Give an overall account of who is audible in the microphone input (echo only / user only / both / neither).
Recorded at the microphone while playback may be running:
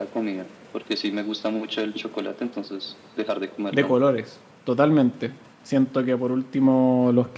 both